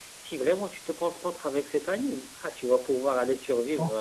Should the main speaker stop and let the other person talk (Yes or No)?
Yes